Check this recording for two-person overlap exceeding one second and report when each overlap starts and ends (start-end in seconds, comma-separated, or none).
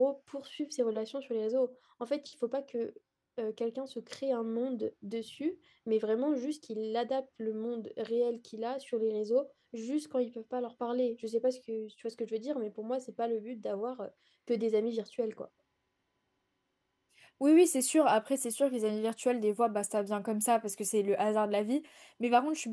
none